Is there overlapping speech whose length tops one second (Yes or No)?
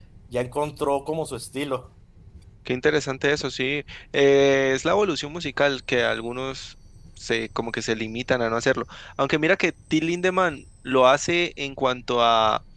No